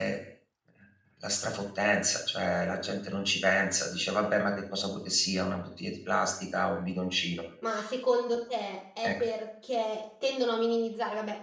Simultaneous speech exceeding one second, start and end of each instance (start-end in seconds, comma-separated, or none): none